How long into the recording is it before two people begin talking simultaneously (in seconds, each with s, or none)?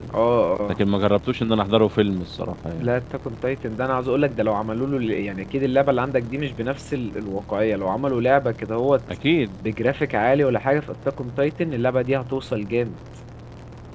none